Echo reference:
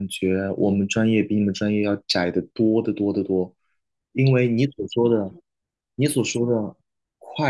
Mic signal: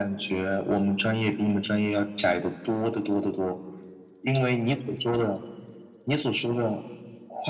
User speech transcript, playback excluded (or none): none